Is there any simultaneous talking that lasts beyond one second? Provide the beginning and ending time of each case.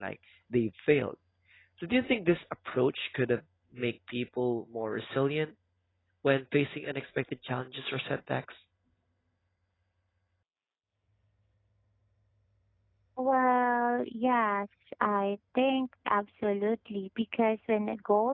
none

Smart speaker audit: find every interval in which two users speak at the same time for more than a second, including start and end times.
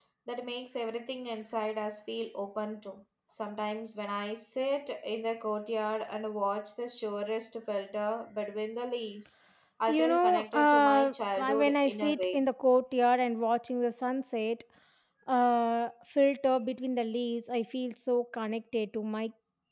9.9-12.4

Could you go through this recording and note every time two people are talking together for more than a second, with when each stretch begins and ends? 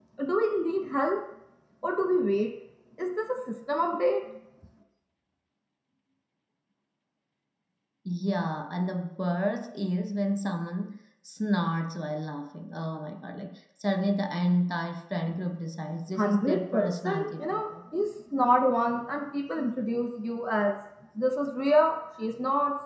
16.1-17.7

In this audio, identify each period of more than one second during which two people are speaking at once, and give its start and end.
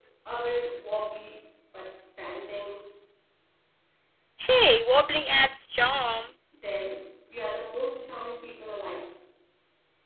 none

